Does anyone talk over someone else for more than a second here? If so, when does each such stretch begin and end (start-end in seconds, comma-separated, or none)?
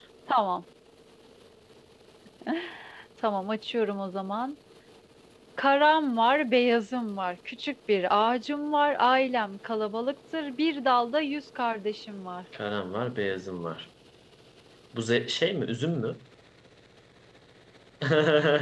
none